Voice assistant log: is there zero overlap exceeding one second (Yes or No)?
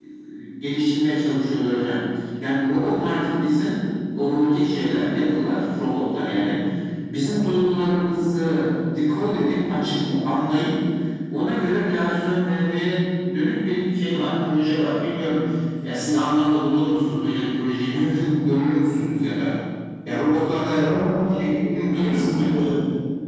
No